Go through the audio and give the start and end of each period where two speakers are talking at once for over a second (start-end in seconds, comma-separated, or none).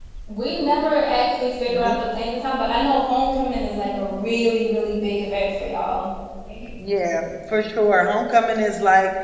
none